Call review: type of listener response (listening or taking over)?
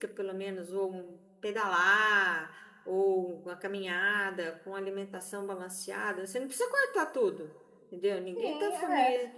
taking over